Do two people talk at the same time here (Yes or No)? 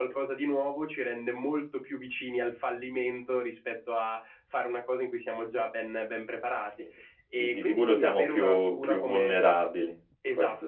Yes